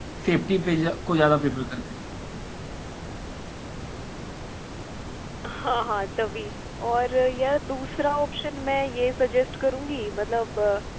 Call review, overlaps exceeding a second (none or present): none